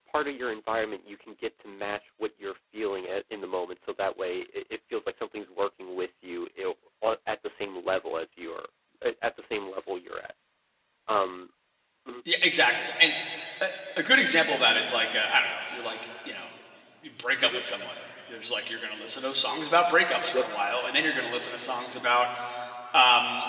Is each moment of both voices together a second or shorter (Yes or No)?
Yes